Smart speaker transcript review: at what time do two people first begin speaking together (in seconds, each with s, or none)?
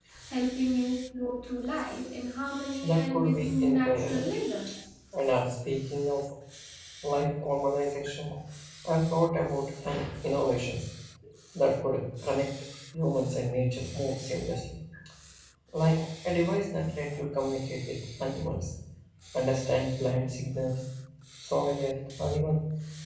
2.8 s